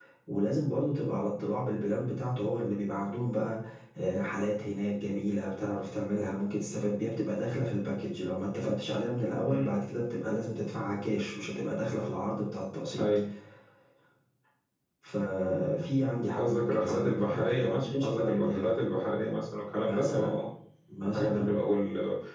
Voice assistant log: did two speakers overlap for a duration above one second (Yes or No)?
Yes